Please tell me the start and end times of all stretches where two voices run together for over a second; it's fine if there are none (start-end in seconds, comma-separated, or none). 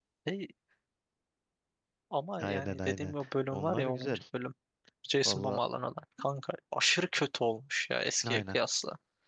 2.4-4.2